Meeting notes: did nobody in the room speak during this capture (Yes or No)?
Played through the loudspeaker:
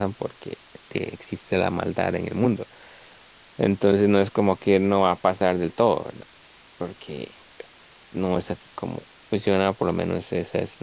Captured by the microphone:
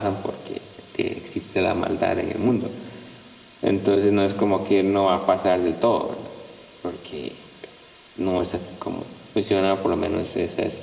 Yes